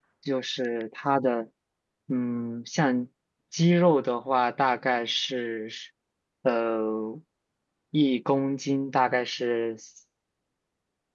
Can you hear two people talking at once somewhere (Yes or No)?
No